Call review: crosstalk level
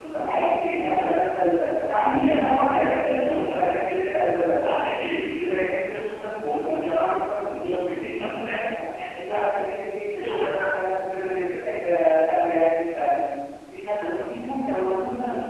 present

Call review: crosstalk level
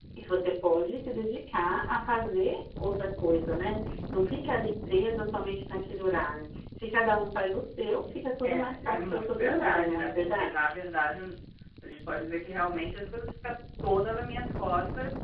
present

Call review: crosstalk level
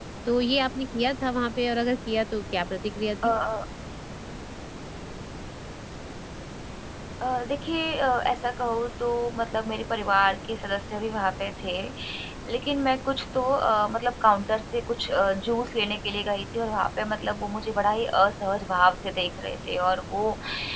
none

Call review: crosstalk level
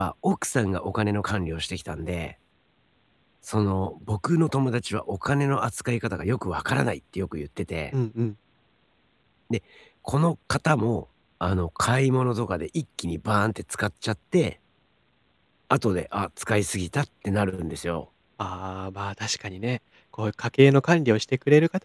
none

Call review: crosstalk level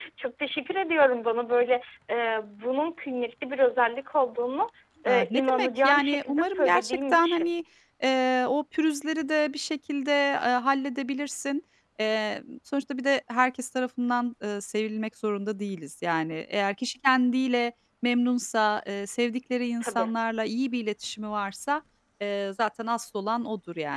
present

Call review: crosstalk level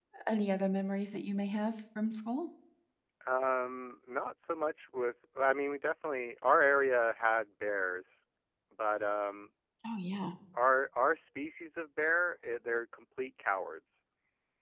none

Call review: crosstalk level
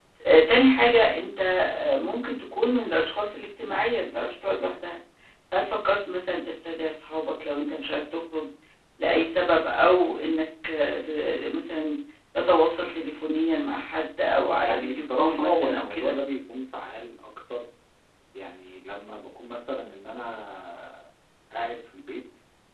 present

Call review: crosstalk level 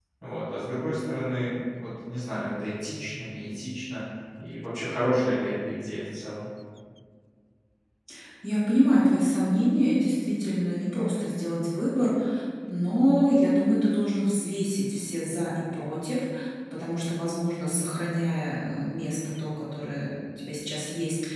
none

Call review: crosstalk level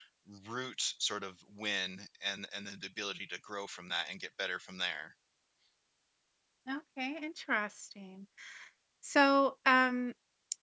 none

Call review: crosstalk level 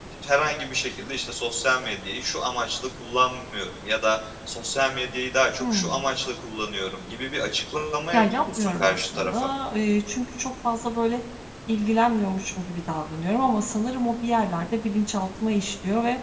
present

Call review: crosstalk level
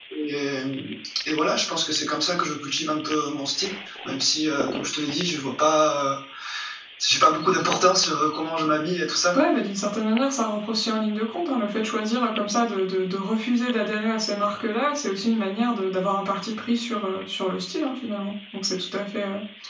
none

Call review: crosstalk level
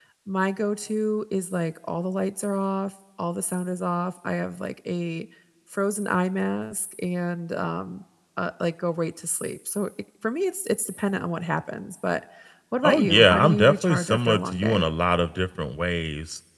present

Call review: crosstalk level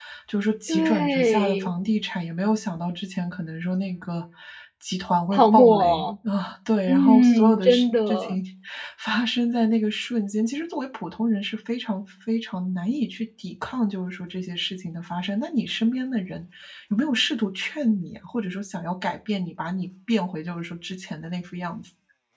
present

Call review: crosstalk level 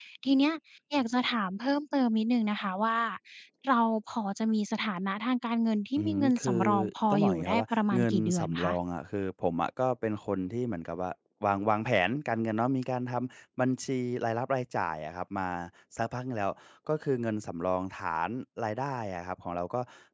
present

